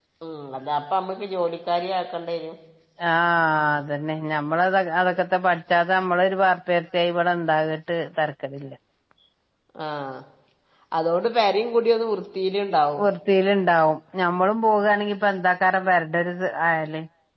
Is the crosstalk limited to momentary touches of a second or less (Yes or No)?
Yes